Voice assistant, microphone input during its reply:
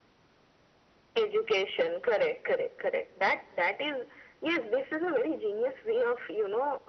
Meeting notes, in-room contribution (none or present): none